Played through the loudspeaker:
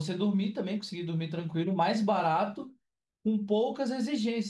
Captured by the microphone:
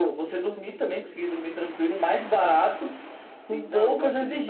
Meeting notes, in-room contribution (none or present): present